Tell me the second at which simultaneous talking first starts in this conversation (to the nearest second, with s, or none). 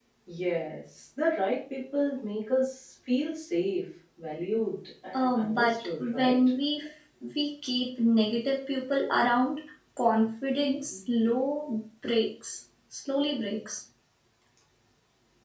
5 s